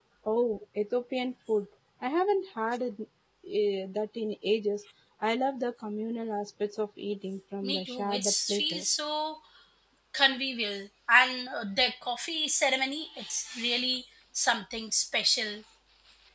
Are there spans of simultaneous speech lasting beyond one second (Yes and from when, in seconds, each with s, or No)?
Yes, from 7.6 s